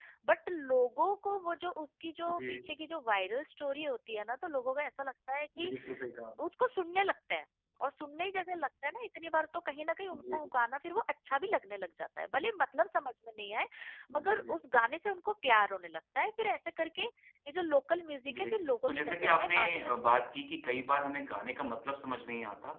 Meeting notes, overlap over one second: present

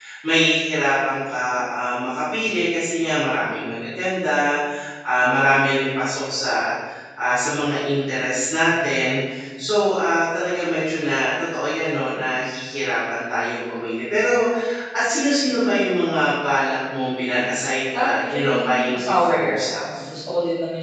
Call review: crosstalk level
present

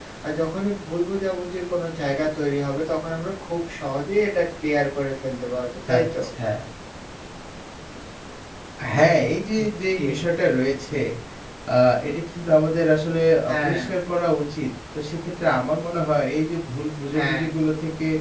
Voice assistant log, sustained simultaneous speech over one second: none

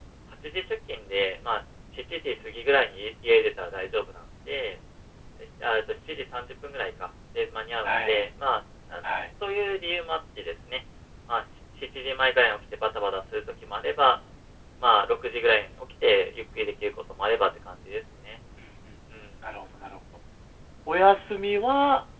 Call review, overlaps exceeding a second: none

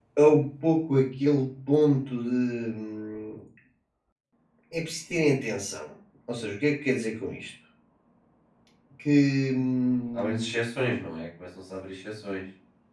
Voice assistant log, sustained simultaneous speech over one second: none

